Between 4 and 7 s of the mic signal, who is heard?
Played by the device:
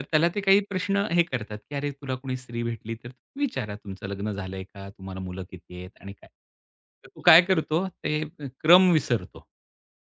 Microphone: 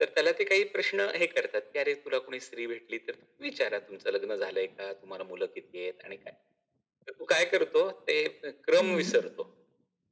echo only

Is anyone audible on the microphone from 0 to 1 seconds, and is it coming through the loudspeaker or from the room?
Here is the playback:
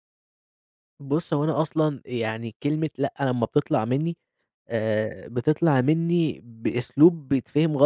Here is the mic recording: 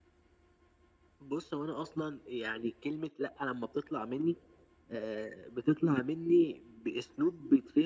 neither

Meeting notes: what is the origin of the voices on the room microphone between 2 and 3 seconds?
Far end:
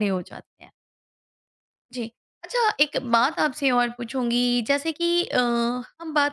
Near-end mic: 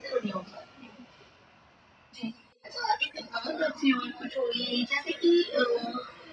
echo only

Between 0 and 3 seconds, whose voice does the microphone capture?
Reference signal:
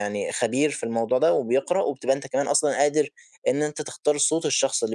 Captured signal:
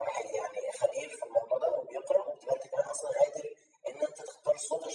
echo only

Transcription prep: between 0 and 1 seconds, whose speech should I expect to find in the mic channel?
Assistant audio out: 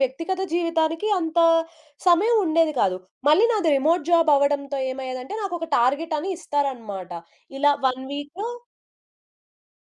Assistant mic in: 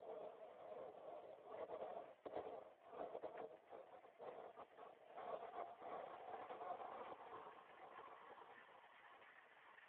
neither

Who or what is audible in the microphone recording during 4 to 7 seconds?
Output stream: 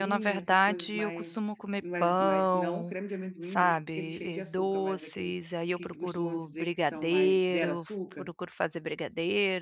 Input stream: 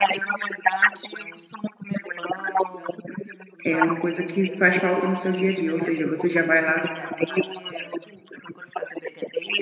both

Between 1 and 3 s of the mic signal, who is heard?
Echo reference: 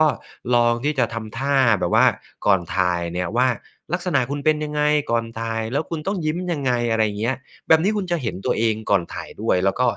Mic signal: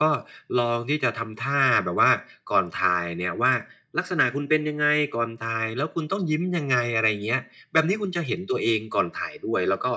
echo only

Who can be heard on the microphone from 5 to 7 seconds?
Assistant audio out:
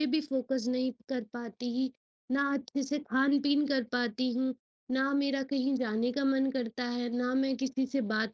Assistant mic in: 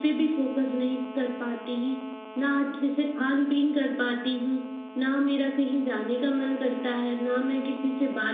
echo only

